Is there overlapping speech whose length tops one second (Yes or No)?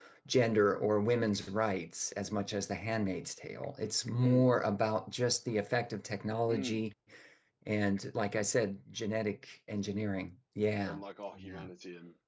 No